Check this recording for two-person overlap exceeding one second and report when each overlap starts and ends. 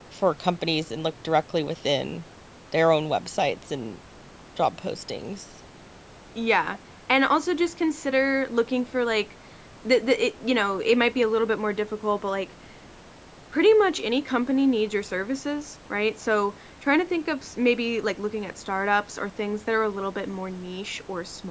none

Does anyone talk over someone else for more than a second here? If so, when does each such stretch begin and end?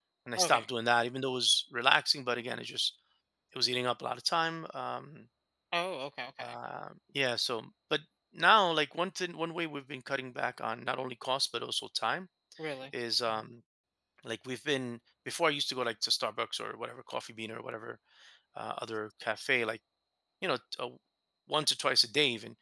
none

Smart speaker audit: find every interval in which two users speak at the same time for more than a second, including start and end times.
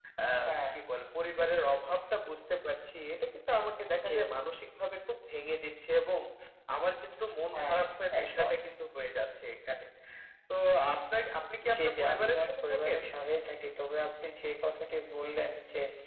11.8-13.0

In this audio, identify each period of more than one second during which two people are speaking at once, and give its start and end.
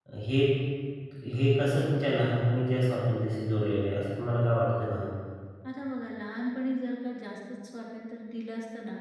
none

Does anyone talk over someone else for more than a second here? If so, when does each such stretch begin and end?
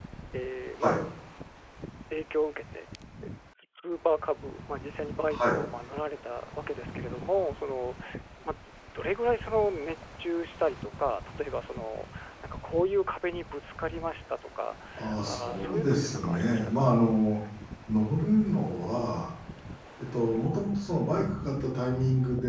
15.3-17.0

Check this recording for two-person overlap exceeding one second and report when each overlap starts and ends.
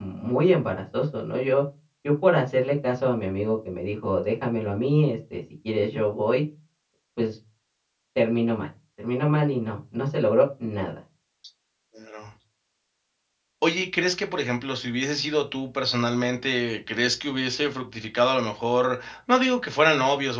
none

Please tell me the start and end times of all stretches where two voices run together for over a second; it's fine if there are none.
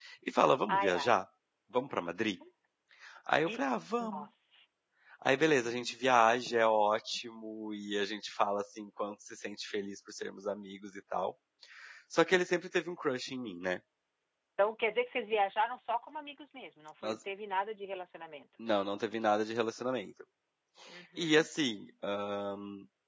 none

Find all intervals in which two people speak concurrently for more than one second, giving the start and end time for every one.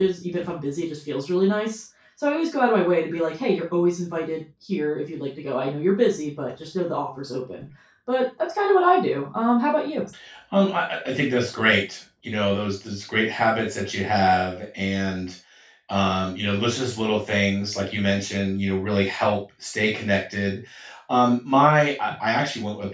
none

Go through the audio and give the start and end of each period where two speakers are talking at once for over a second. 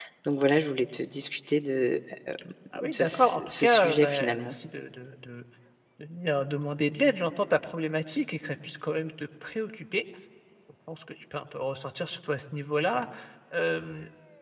2.7-4.5

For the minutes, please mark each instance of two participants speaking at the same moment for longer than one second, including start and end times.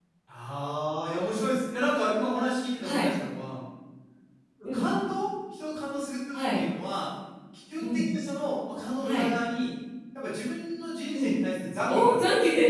none

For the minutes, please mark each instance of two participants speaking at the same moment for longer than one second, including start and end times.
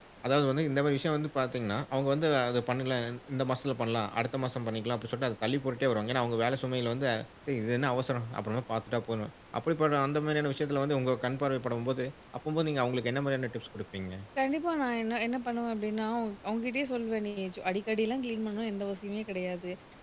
none

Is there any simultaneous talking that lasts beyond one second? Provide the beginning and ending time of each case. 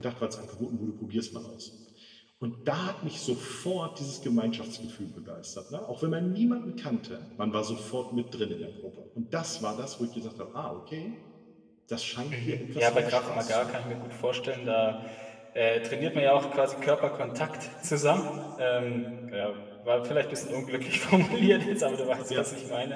12.3-13.8

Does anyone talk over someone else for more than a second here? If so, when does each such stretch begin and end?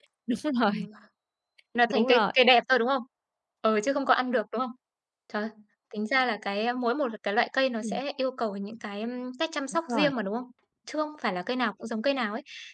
none

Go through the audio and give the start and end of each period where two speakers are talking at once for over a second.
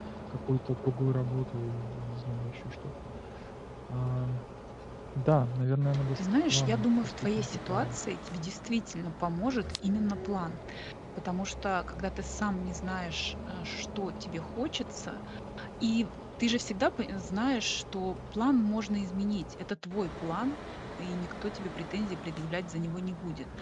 6.2-8.0

